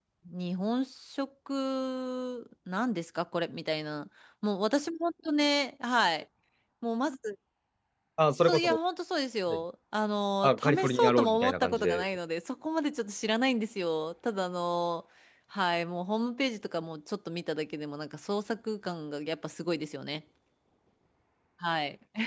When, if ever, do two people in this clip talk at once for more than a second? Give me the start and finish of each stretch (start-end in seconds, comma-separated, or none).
10.4-12.1